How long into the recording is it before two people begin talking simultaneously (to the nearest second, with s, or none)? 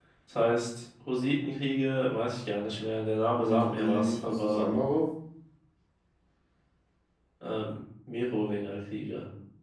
3 s